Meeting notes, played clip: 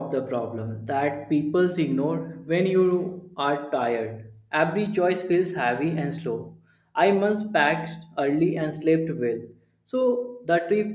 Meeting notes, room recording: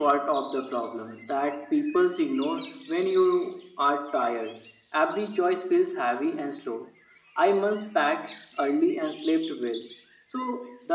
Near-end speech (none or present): none